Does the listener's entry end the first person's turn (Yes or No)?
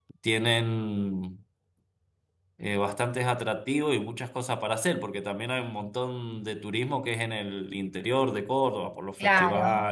Yes